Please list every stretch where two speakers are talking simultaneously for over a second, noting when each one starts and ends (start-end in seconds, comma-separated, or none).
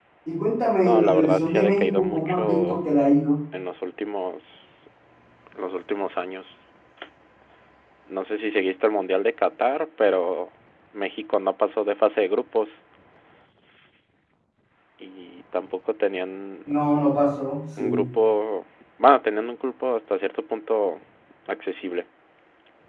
0.8-2.8